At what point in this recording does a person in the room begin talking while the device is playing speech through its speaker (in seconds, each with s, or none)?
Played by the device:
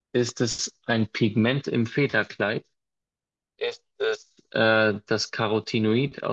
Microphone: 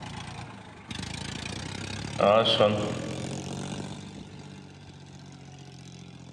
2.2 s